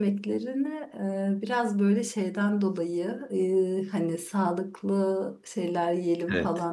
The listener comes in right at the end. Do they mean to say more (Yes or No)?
No